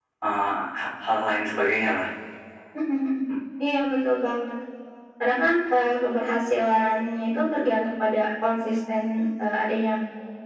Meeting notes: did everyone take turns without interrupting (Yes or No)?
Yes